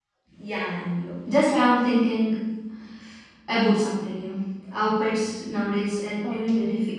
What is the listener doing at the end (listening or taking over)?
taking over